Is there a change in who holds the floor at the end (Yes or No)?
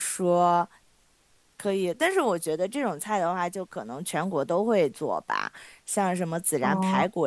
No